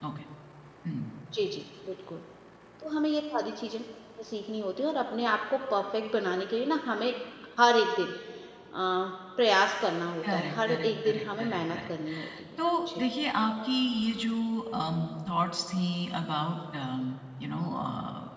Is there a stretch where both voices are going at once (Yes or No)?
Yes